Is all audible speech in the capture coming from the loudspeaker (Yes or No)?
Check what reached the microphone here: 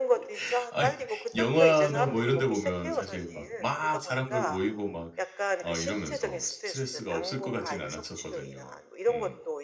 No